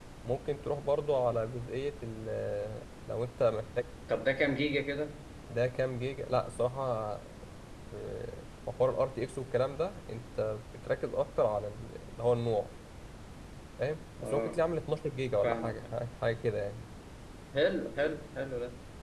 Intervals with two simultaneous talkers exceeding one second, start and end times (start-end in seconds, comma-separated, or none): none